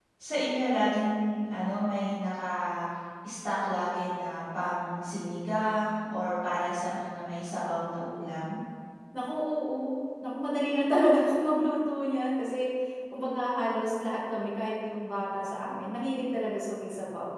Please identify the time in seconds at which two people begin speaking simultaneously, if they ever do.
none

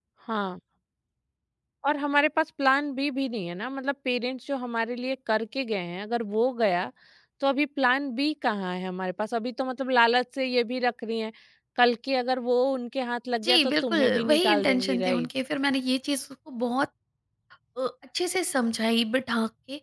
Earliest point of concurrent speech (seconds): 13 s

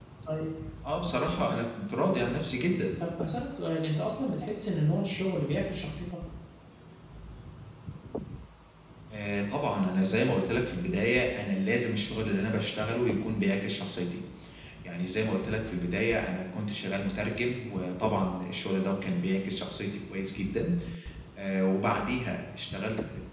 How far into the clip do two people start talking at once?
none

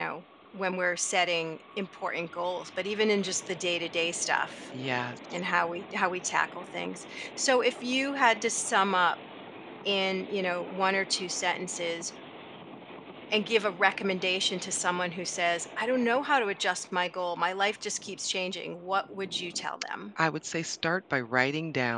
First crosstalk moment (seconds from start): none

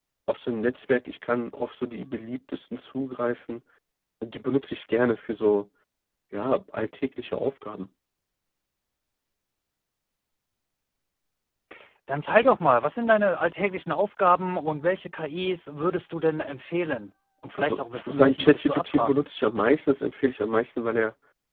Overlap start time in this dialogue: 18 s

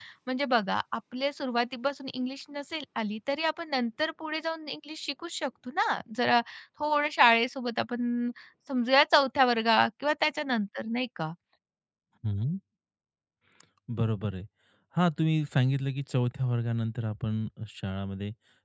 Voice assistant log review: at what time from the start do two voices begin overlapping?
none

